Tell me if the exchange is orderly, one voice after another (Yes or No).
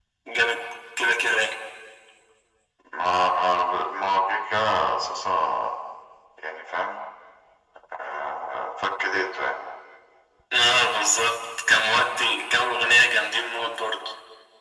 Yes